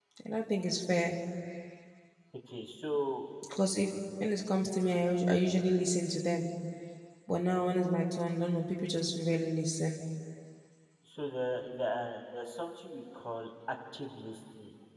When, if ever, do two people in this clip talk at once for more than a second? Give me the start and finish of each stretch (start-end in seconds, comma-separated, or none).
none